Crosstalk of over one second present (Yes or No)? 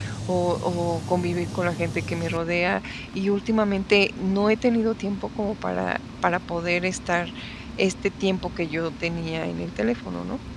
No